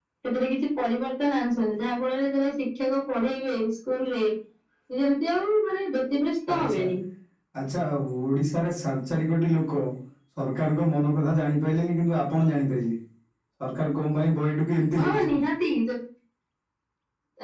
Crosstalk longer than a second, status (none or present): none